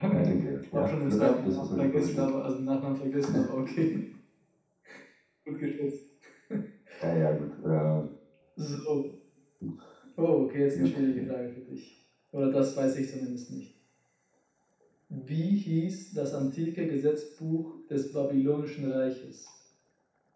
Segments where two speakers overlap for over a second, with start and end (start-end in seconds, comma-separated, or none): 0.7-2.3